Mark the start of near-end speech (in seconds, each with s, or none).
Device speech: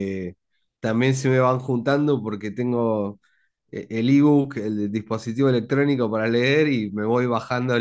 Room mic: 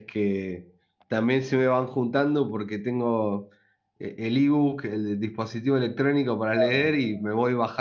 6.5 s